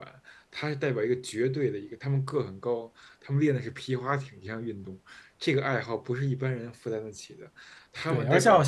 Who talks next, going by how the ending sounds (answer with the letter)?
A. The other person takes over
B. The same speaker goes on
A